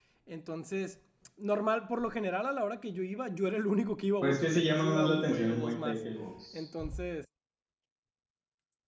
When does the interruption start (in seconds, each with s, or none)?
4.2 s